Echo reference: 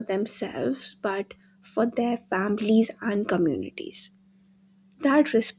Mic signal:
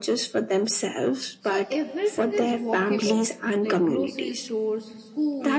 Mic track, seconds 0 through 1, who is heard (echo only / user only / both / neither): echo only